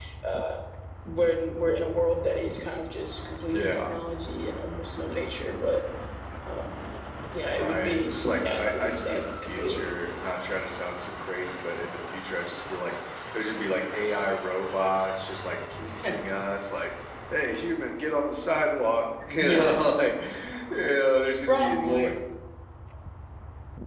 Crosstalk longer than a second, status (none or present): present